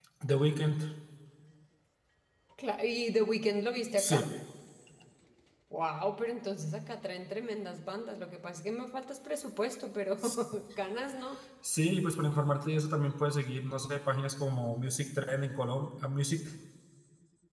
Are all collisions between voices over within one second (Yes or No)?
Yes